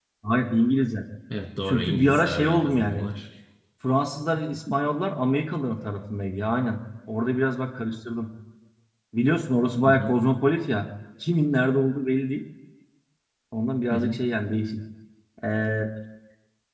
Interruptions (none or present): present